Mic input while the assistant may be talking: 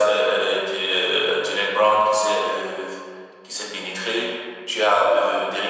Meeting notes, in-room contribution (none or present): none